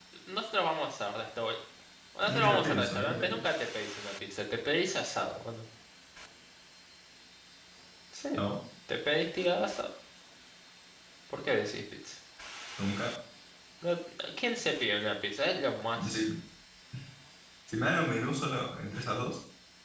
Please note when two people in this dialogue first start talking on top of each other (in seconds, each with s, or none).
2.2 s